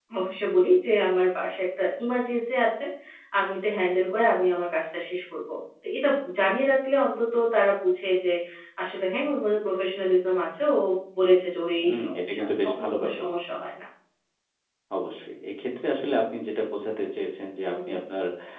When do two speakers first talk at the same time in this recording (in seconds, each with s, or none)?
11.8 s